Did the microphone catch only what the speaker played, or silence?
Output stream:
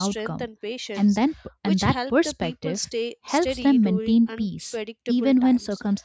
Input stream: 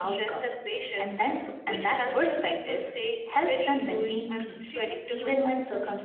No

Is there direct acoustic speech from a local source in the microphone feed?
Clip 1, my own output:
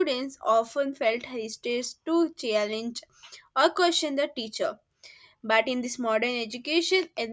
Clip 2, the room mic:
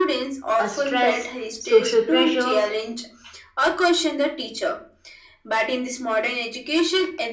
Yes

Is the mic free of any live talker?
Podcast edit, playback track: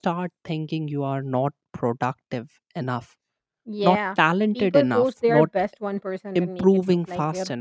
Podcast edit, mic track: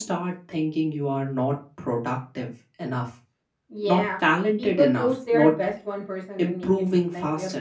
Yes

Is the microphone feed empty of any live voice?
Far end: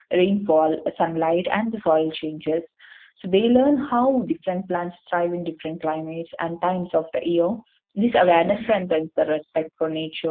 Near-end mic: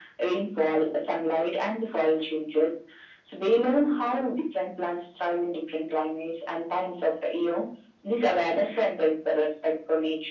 Yes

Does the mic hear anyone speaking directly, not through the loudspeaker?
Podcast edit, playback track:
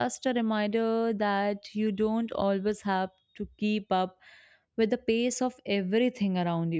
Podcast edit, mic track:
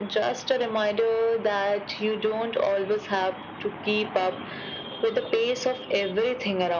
No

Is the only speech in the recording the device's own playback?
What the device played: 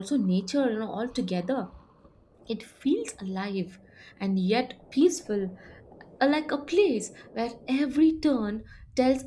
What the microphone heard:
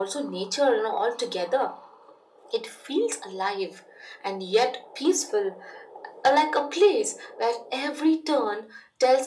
Yes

